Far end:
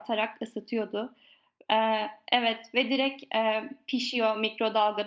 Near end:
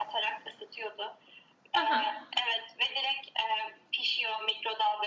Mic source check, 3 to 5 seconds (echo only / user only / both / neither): echo only